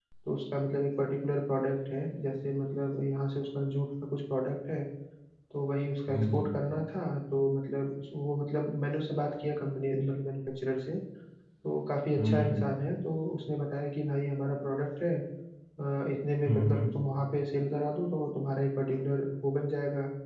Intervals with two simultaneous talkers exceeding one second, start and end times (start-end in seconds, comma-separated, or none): none